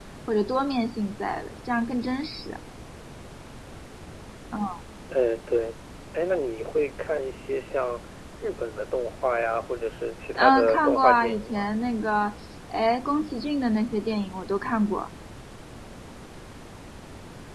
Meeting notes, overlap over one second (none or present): present